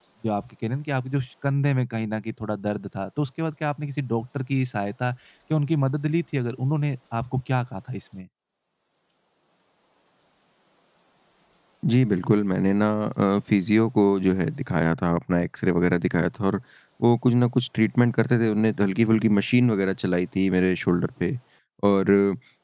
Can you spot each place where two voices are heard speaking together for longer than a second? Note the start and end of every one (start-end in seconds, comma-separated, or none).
none